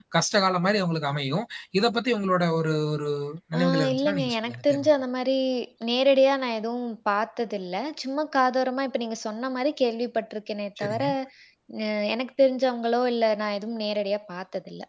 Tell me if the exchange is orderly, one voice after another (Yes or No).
No